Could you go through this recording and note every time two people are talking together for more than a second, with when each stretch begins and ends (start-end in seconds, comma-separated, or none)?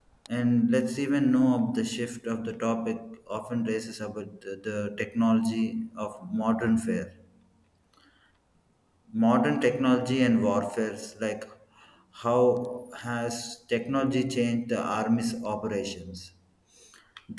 none